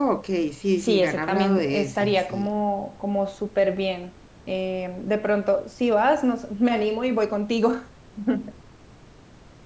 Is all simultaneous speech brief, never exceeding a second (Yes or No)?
No